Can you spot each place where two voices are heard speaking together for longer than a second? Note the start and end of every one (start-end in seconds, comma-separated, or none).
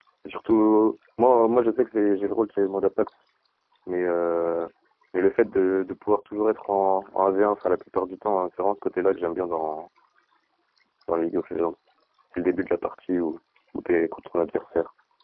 none